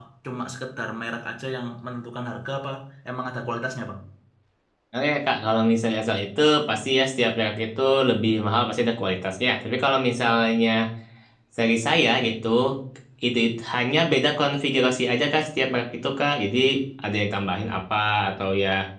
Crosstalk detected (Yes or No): No